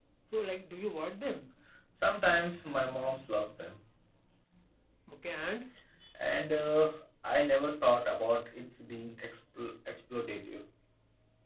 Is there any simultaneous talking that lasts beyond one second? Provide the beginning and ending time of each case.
none

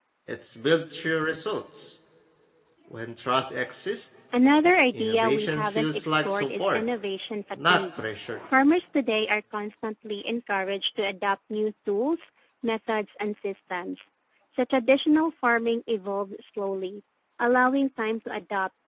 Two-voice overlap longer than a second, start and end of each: 4.9-6.8

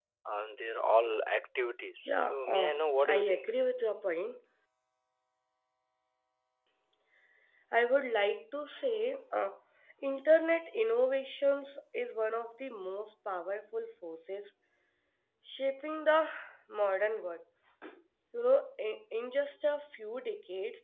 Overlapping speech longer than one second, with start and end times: 2.0-3.5

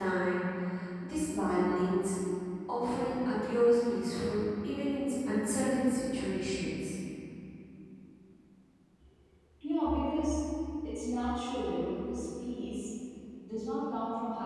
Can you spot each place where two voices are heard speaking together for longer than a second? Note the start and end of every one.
none

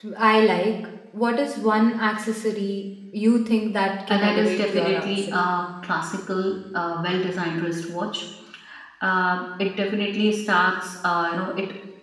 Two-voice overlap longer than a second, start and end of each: 4.1-5.4

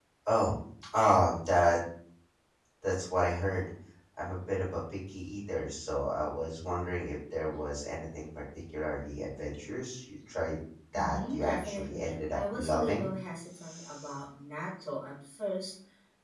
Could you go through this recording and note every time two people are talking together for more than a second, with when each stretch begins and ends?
11.0-13.1

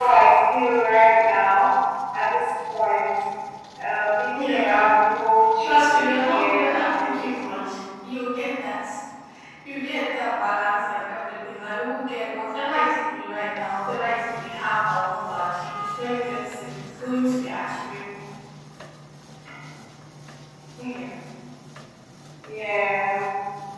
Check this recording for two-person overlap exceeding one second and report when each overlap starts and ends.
5.6-7.7

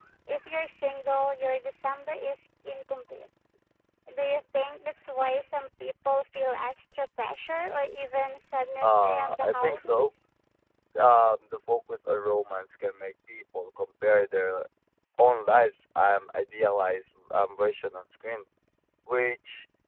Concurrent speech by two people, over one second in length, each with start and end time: 8.8-10.1

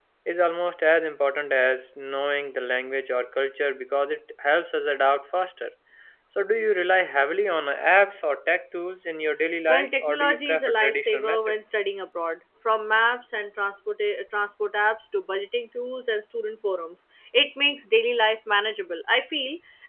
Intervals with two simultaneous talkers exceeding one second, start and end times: 9.7-11.7

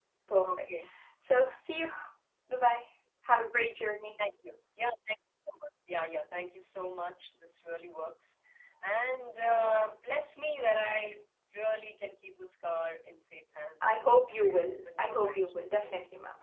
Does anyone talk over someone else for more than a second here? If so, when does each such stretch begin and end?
13.8-15.6

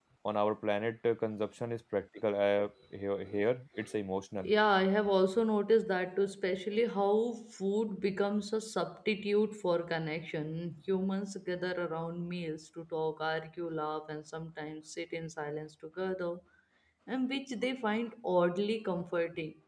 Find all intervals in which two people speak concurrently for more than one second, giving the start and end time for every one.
none

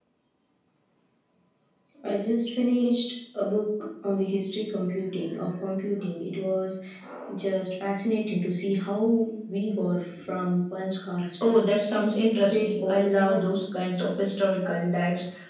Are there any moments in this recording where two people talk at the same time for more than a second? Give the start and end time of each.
12.4-13.8

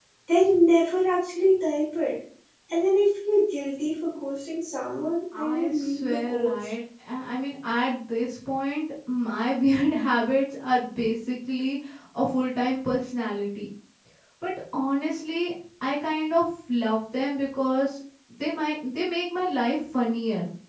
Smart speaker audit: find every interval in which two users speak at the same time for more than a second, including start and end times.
5.4-6.7

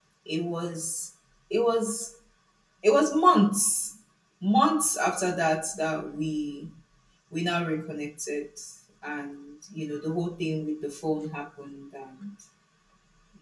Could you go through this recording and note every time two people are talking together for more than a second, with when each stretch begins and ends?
none

